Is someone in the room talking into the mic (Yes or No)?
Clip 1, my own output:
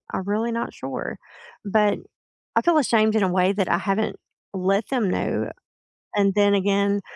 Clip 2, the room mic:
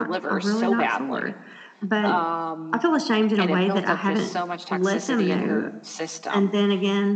Yes